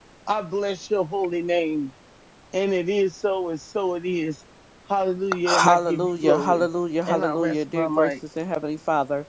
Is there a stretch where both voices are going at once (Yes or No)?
Yes